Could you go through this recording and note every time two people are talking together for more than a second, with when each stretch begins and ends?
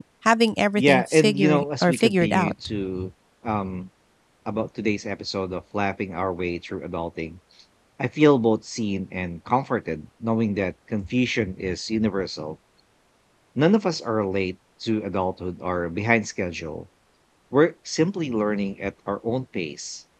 0.8-2.5

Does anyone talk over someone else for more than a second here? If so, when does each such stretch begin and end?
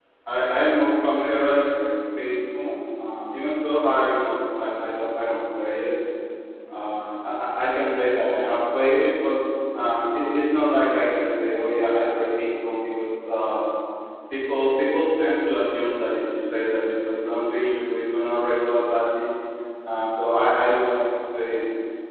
none

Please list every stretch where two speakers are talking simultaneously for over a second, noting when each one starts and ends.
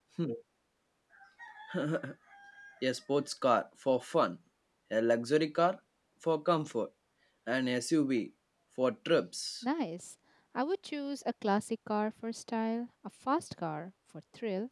none

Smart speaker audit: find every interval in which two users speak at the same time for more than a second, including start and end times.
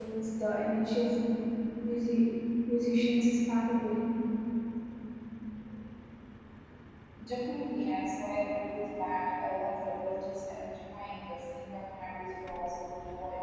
none

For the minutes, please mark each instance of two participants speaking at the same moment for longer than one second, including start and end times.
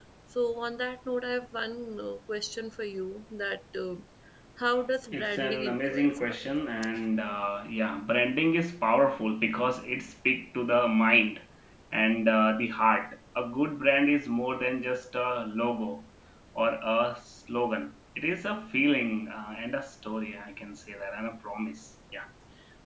5.1-6.5

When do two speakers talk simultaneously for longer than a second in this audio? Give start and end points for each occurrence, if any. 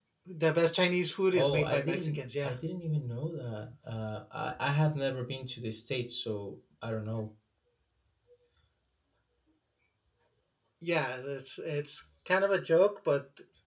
1.3-2.5

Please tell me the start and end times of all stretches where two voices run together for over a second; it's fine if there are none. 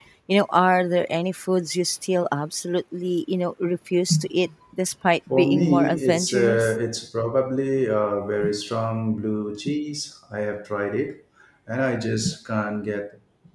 5.3-6.7

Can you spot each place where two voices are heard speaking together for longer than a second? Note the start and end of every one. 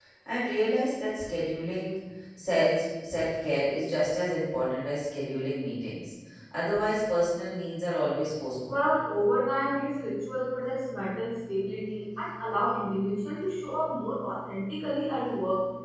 none

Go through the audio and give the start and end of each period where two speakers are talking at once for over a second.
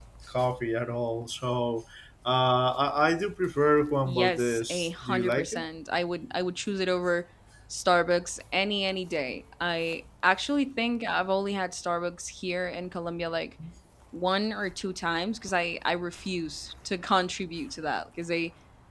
4.0-5.6

